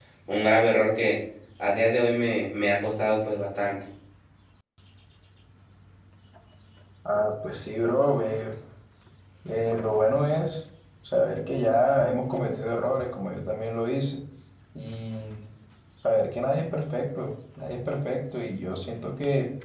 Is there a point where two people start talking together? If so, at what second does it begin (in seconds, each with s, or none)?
none